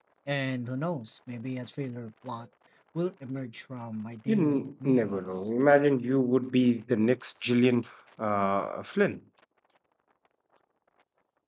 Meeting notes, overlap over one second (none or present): present